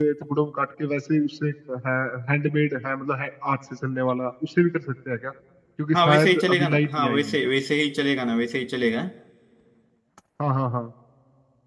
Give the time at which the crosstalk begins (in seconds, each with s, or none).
5.9 s